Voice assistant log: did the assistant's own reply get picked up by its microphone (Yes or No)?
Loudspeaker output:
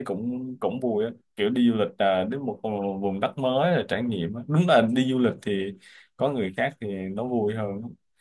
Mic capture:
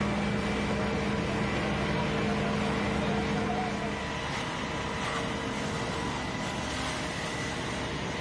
No